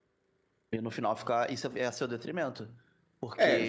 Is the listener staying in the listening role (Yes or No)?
No